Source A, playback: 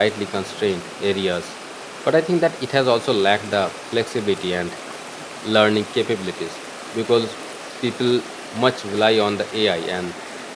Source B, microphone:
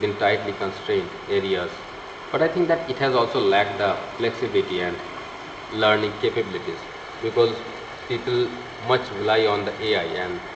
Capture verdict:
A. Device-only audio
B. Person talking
A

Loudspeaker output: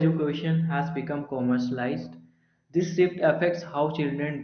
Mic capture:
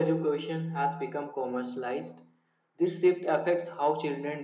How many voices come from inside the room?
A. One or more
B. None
B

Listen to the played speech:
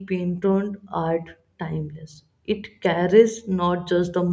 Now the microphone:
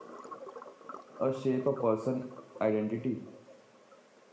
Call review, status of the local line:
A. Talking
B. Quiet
A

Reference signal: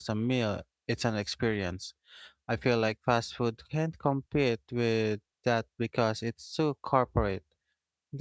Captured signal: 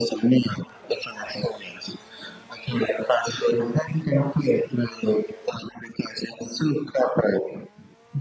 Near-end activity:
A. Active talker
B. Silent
B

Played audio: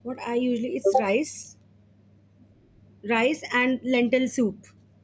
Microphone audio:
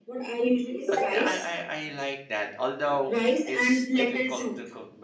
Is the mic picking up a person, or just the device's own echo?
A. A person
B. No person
A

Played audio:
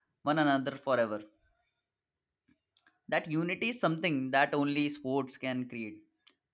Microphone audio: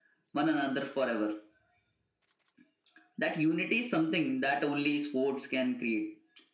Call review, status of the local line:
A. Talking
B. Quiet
B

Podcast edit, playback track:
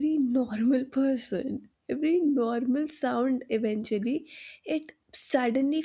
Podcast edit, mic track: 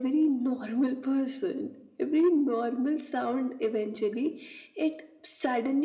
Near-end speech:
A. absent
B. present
A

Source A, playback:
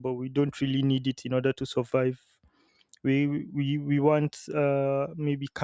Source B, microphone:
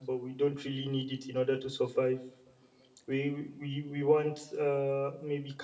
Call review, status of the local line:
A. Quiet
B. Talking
A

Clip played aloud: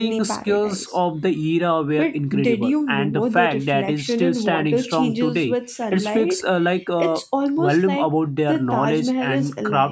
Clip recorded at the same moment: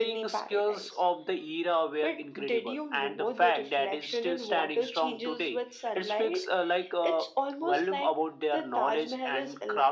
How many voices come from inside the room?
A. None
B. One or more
A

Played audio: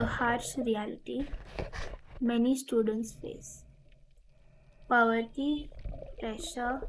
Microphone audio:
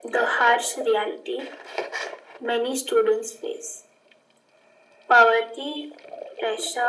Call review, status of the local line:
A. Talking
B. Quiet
B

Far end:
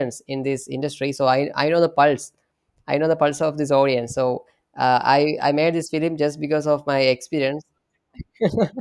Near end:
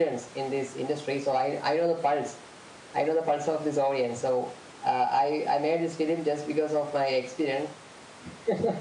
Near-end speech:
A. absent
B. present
A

